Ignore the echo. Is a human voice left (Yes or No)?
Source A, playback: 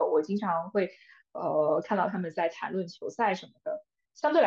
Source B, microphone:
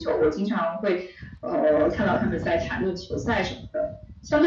No